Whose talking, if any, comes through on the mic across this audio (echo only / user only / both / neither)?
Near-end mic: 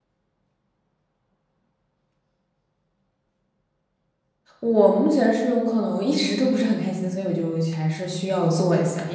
user only